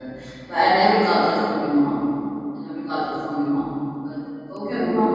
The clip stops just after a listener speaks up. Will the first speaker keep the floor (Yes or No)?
No